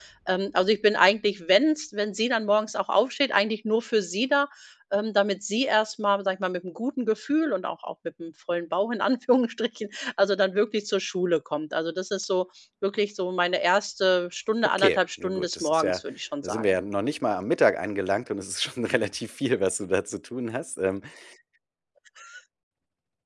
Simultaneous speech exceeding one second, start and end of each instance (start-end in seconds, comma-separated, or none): 14.8-16.0